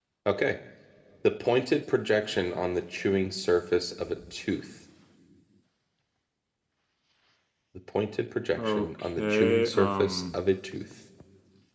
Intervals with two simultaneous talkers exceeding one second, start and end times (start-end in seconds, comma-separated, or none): 8.6-10.4